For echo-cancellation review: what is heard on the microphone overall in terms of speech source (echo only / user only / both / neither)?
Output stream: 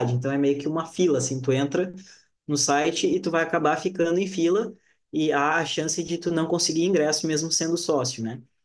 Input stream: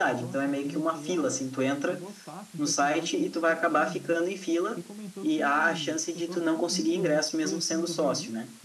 both